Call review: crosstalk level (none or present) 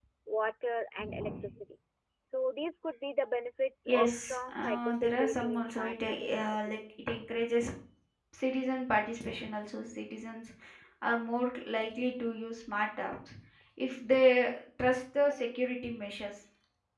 present